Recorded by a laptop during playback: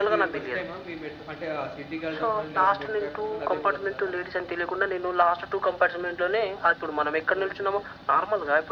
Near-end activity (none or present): present